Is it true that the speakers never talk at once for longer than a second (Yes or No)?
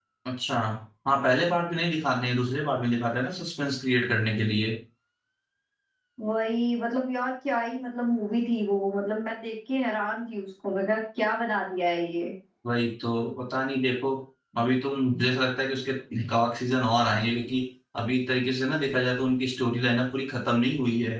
Yes